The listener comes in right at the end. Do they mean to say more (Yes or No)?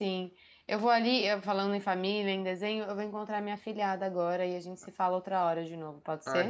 Yes